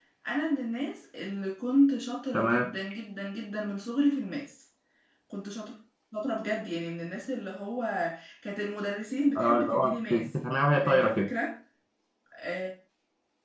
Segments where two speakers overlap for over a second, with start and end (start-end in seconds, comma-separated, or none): 9.4-11.3